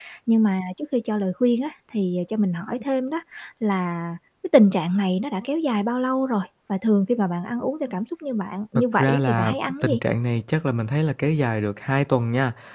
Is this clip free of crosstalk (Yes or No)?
No